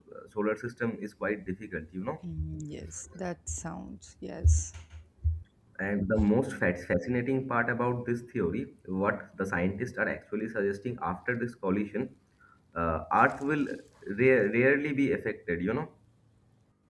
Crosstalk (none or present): none